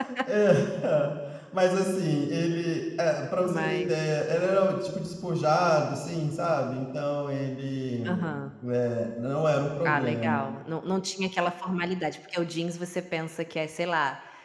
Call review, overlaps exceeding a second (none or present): none